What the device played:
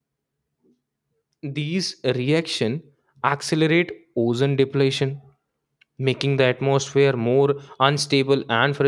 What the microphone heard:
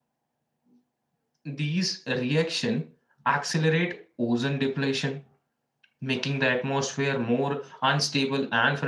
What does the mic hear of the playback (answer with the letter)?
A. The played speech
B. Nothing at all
A